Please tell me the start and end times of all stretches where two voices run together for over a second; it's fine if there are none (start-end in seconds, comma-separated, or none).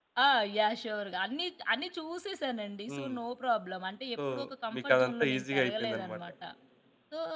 4.7-6.2